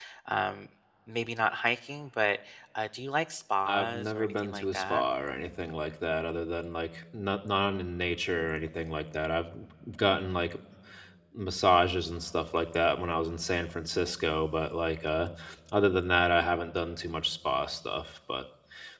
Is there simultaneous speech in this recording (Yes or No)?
Yes